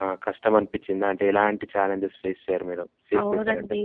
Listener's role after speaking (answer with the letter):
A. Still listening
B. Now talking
B